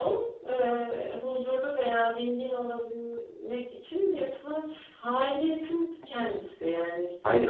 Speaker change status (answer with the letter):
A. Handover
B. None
B